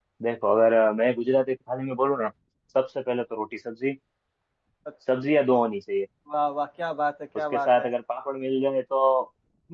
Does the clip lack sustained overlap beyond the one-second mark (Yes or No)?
Yes